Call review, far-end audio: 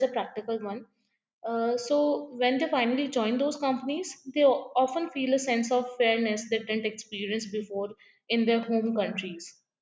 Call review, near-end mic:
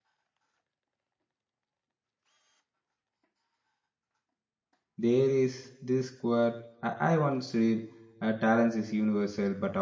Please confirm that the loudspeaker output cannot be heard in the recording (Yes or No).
Yes